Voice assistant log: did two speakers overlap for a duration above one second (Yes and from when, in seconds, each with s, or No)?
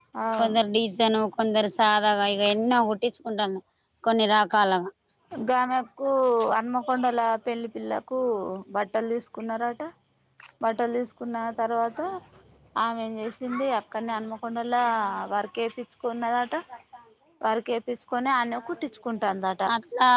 No